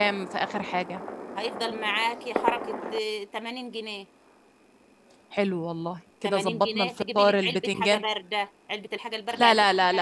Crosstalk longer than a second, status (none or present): present